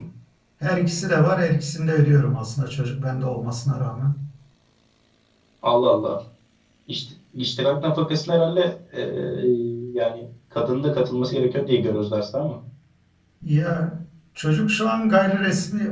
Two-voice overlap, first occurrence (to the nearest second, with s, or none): none